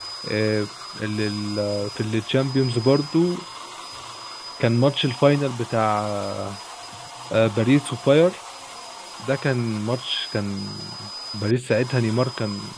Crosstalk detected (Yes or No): No